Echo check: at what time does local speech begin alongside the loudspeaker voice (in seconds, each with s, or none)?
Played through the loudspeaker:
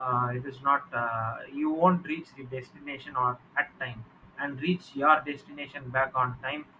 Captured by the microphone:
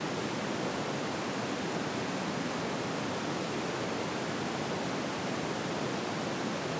none